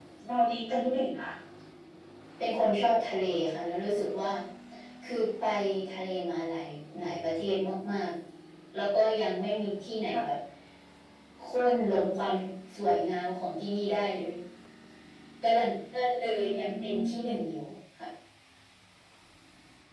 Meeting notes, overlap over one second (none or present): present